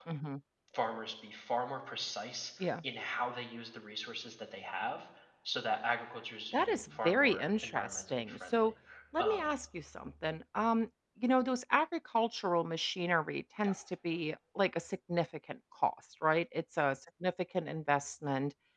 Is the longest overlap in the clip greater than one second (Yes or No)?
Yes